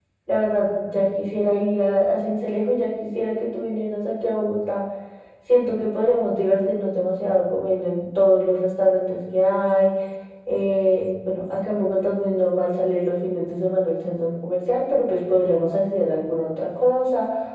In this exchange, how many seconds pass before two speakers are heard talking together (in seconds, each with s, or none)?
none